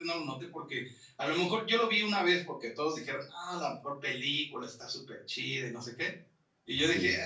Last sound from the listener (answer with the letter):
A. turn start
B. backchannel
B